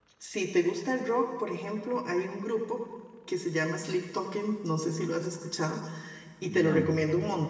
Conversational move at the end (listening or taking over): listening